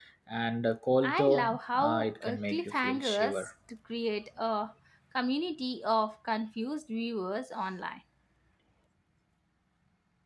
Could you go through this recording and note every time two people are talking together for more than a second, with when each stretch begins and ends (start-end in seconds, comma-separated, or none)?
1.0-3.5